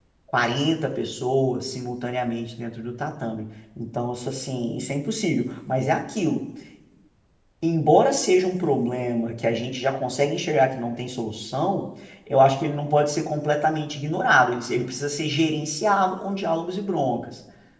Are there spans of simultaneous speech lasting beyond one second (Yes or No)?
No